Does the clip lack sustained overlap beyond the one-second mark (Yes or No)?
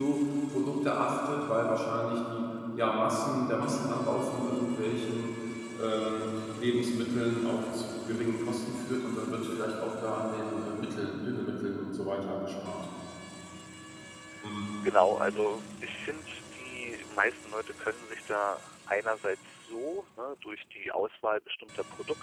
Yes